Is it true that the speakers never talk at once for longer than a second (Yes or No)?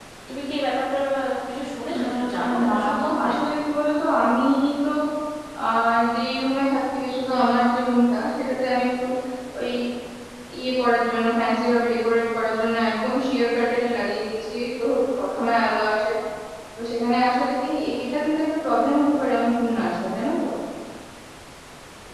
No